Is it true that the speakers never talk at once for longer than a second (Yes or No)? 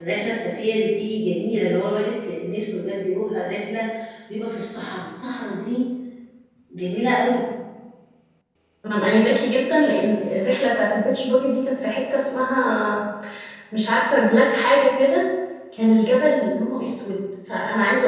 Yes